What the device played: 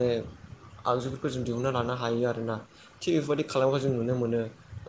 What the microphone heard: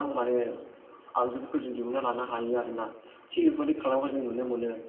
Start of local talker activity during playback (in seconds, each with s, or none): none